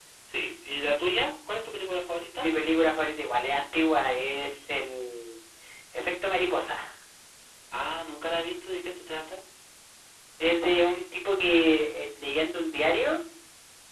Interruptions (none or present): none